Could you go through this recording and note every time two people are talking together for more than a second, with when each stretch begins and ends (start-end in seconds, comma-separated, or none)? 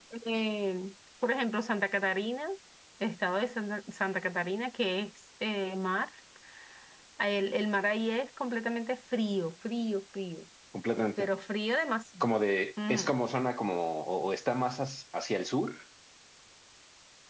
none